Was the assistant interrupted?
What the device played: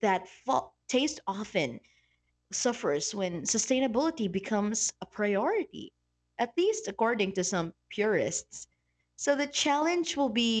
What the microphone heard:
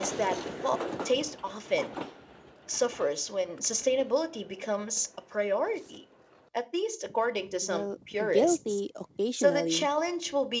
Yes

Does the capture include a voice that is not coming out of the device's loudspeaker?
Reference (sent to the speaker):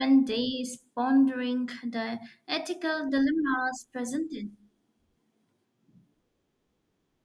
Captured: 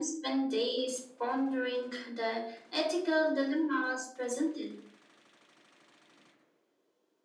No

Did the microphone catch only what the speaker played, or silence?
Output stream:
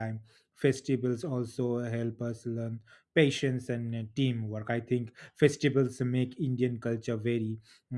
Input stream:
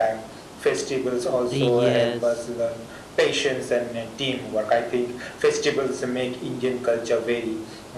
No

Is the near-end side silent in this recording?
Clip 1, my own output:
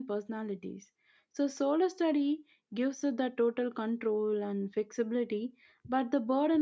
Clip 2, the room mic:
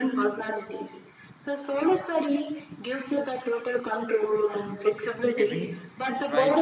No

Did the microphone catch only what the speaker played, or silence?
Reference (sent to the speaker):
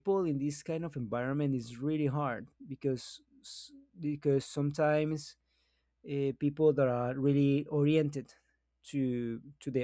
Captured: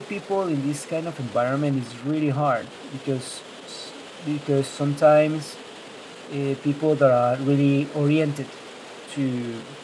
Yes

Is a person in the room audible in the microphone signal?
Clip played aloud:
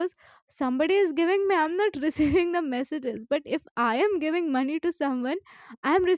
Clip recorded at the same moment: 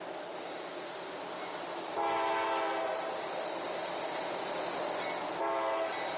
No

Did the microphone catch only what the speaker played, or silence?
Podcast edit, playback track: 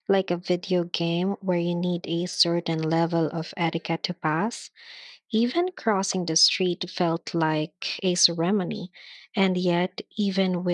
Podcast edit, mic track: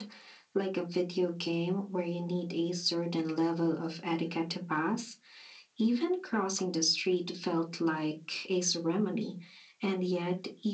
Yes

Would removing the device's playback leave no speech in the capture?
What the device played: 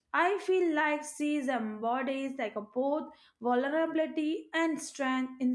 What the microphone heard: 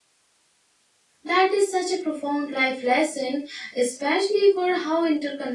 No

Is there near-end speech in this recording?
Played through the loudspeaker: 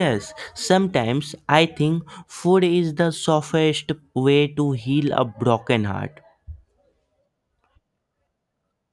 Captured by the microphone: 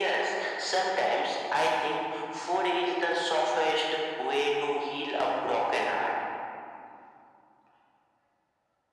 No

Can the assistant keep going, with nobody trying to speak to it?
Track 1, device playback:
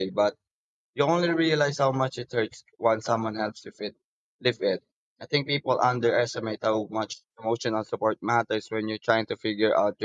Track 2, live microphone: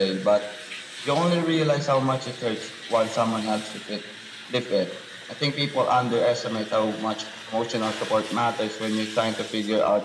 Yes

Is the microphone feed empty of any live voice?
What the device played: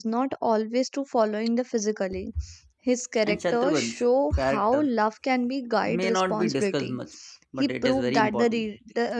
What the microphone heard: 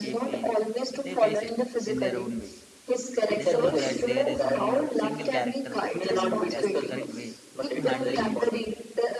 No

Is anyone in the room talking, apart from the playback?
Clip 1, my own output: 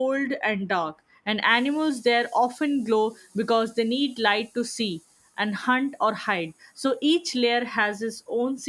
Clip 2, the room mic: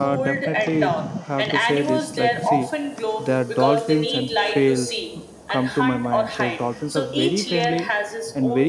Yes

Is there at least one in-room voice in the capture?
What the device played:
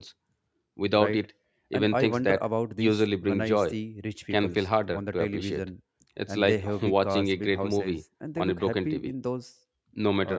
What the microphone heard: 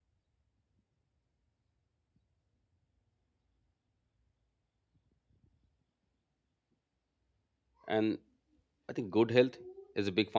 Yes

